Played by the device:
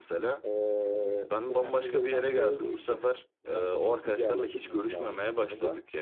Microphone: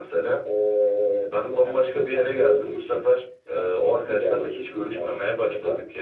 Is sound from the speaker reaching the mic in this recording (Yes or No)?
Yes